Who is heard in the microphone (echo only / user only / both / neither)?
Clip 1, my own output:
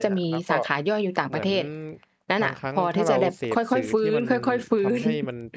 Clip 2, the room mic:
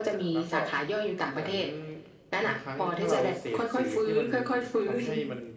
echo only